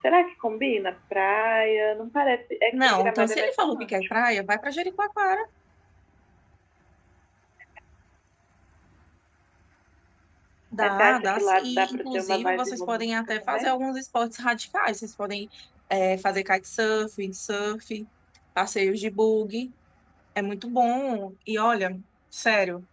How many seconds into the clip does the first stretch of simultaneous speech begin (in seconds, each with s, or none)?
2.7 s